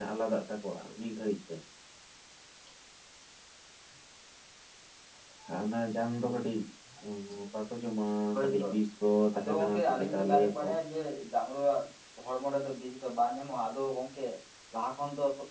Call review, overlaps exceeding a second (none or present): present